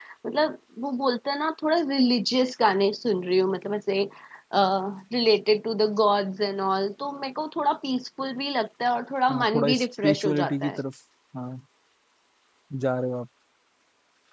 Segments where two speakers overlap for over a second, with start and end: 9.3-10.8

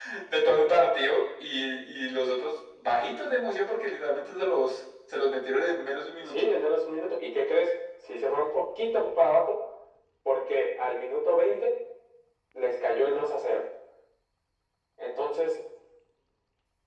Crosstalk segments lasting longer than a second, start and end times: none

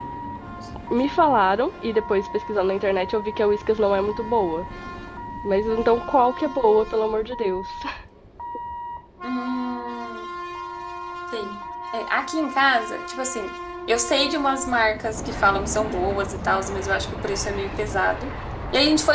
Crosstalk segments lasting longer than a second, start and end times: none

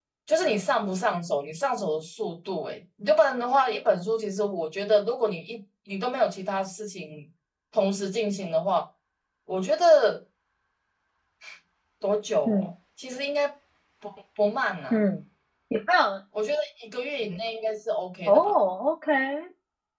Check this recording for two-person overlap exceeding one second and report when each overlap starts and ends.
none

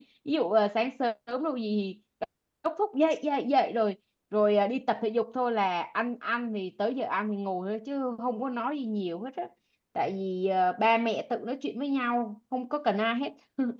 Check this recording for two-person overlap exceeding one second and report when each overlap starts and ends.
none

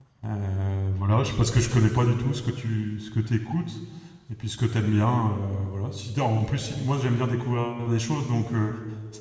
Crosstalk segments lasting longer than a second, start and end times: none

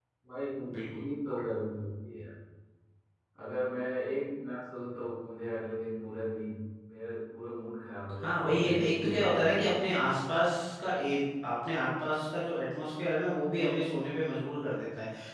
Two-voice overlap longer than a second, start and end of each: 8.2-9.8

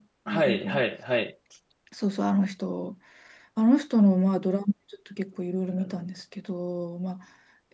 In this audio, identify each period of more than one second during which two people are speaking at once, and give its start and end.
none

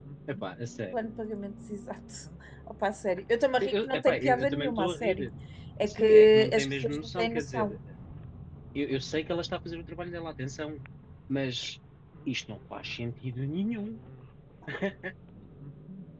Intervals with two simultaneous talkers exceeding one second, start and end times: 3.6-5.3, 5.9-7.8

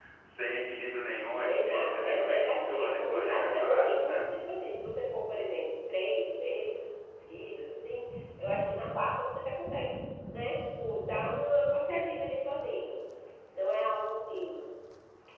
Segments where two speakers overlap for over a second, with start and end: 1.4-4.2

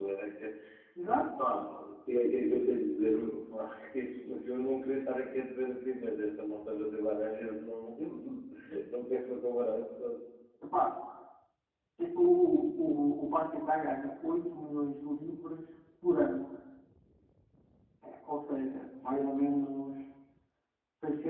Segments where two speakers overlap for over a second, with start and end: none

